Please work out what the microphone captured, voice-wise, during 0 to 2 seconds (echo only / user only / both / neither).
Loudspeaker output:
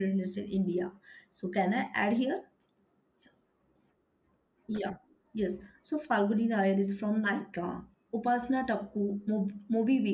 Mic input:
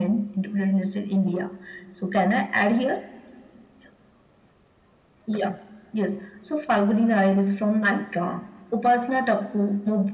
echo only